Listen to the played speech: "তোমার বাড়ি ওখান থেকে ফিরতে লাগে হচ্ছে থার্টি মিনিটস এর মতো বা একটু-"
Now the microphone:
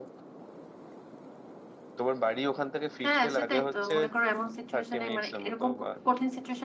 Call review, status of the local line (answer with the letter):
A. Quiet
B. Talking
B